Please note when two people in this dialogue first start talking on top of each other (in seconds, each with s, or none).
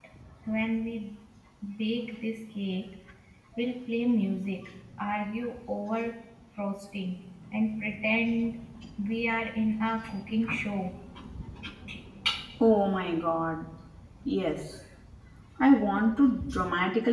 none